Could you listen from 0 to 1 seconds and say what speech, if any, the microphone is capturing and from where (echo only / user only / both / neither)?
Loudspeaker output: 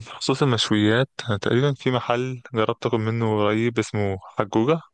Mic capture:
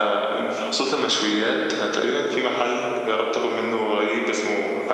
echo only